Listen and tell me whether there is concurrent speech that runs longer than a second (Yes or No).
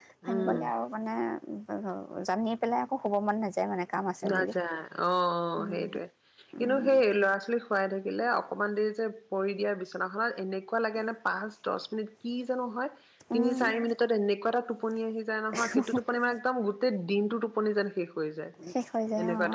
No